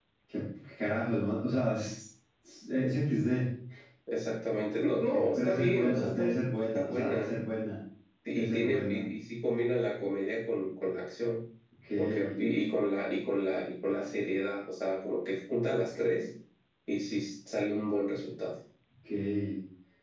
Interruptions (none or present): present